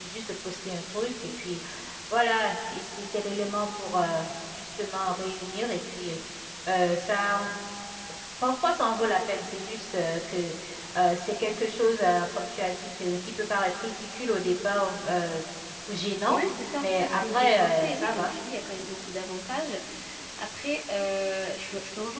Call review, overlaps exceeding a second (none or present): present